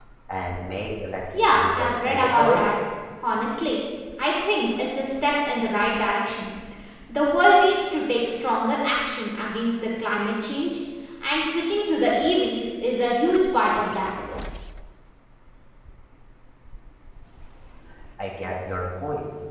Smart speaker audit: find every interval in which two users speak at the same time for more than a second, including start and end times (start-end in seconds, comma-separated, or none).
1.3-2.6